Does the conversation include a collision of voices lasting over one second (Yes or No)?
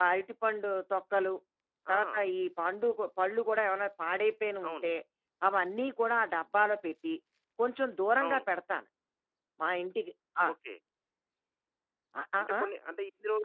No